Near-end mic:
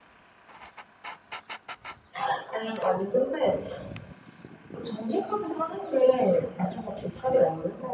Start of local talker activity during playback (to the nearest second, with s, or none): none